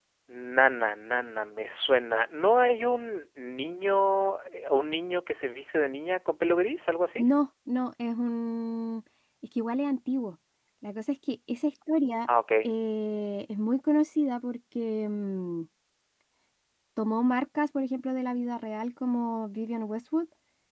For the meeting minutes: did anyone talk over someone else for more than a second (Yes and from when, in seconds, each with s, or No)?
No